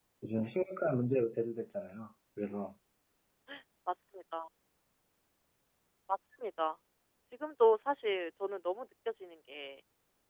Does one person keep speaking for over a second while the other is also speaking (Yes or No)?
No